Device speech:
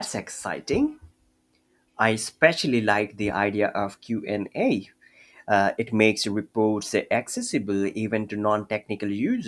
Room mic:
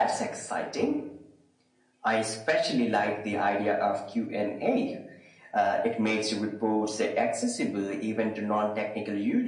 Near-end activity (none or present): none